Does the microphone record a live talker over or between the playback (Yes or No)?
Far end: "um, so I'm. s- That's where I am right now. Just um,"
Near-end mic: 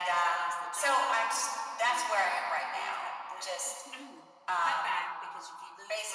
Yes